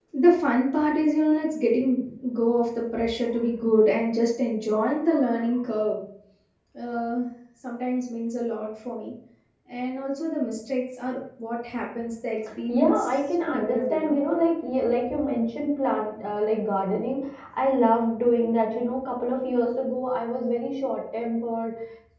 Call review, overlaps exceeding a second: present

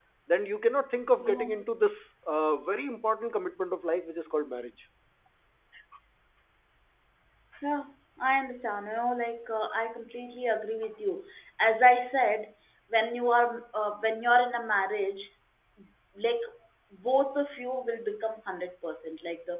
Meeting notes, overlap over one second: none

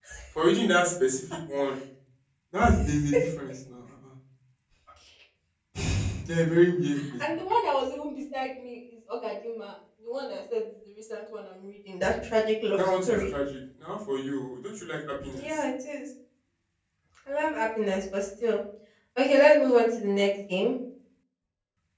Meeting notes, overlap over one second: none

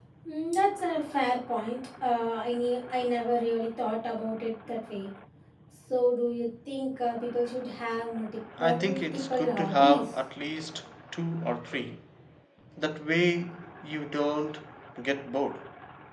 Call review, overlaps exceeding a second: present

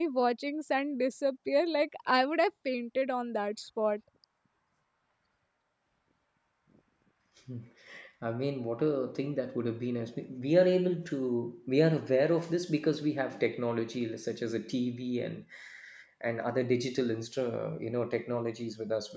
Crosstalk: none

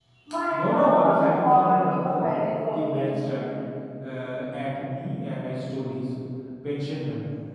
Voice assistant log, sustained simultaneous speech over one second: present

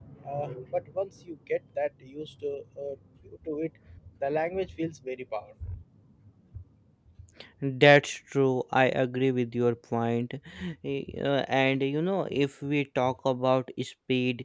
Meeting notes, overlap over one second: none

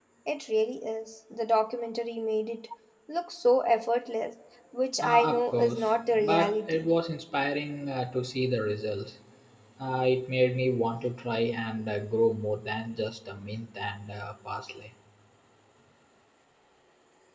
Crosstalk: present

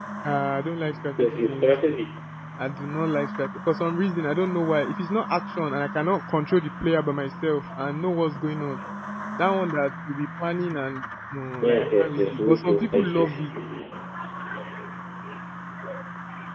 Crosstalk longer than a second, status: present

